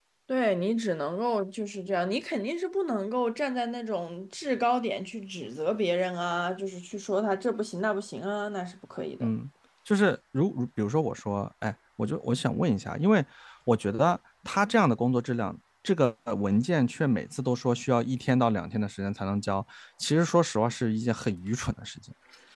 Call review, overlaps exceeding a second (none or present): none